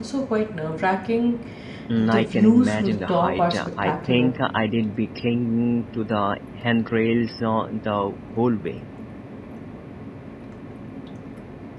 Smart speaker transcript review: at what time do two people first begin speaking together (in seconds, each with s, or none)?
2.0 s